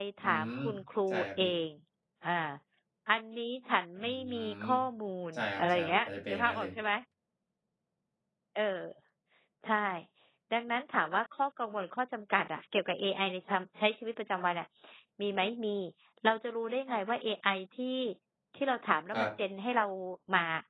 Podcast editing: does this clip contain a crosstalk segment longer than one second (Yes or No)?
Yes